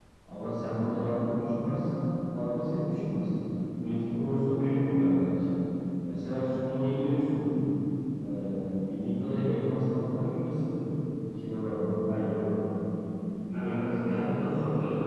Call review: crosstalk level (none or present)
present